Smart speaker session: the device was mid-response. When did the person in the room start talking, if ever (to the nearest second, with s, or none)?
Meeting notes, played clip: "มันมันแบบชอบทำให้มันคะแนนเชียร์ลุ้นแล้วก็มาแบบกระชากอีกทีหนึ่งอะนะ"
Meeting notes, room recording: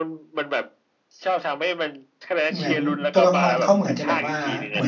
3 s